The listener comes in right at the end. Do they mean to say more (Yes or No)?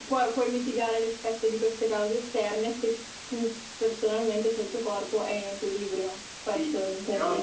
Yes